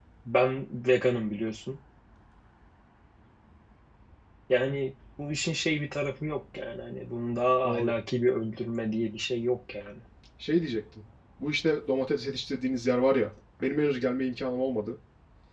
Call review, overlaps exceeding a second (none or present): none